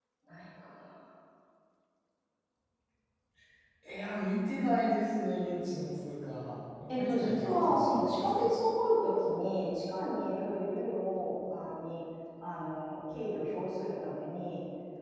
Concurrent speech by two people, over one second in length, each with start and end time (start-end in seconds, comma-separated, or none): 6.9-8.5